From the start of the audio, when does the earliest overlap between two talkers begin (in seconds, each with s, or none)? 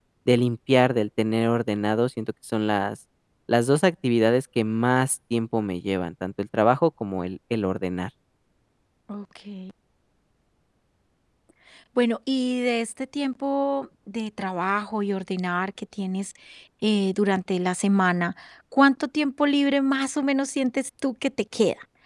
none